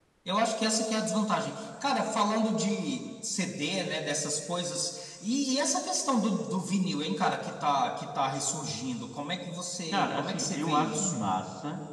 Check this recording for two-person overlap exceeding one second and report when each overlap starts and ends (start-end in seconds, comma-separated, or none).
9.9-11.3